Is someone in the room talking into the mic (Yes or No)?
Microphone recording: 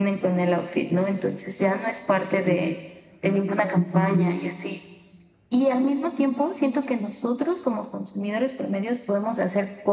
Yes